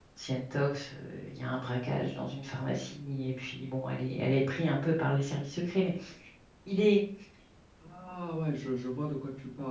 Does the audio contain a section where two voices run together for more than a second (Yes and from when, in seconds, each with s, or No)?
No